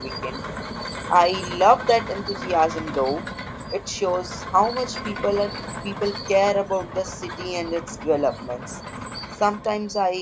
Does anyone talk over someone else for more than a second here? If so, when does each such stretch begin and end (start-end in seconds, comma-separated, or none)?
none